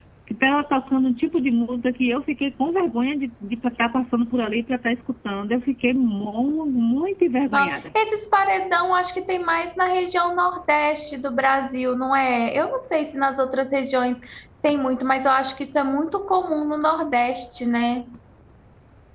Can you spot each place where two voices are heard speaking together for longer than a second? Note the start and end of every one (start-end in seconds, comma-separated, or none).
none